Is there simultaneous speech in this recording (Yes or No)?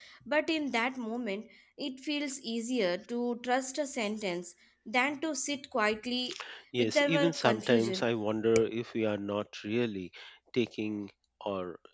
Yes